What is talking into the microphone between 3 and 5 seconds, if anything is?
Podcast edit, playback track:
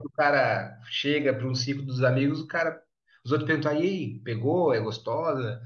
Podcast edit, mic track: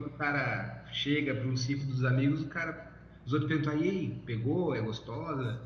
echo only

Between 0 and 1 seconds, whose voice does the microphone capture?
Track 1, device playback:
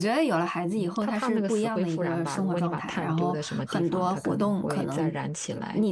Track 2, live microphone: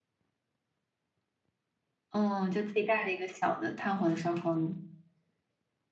neither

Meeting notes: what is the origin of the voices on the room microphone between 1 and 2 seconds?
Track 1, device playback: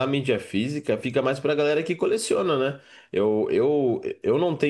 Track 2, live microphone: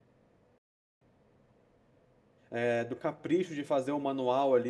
neither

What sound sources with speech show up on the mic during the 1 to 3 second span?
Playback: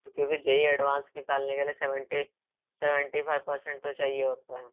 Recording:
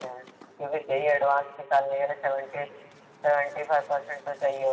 echo only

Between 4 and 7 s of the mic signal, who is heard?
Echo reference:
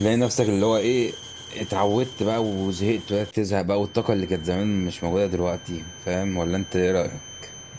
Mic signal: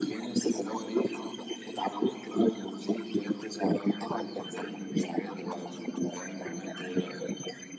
echo only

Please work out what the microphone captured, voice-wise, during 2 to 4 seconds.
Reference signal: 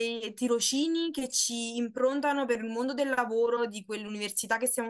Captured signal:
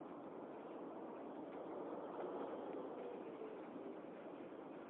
neither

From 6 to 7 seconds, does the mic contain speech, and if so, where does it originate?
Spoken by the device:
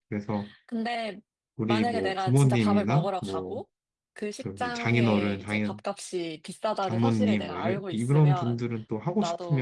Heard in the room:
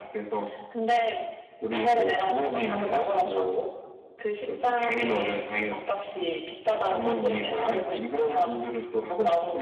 echo only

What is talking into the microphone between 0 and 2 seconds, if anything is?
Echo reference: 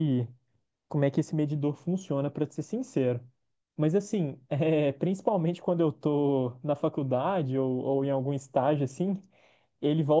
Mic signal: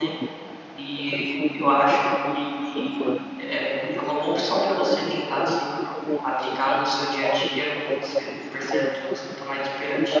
both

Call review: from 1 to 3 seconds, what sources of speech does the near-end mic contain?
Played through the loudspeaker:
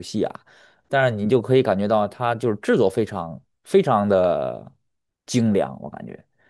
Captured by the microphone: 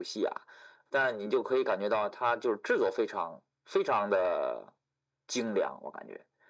echo only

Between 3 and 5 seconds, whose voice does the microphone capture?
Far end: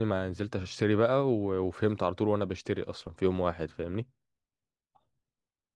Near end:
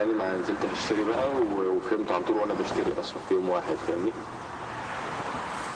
echo only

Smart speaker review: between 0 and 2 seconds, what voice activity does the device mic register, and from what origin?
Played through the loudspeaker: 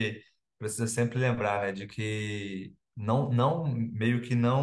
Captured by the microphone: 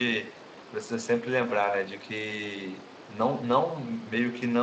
echo only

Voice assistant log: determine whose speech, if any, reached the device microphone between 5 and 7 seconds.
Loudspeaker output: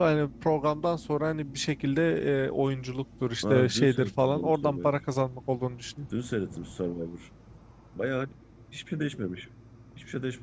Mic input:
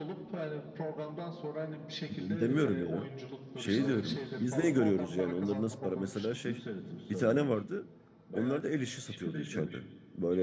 both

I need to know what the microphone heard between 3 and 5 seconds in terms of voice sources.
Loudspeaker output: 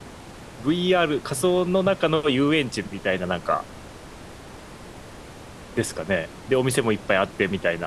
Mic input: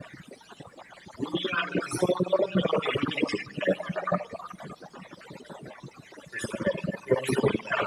echo only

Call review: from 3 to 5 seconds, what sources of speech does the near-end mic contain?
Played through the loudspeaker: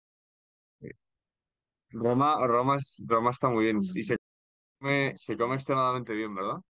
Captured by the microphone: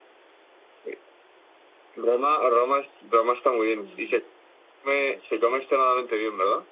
echo only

